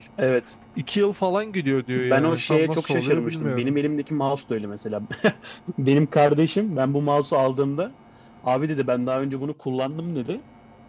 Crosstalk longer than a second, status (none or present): present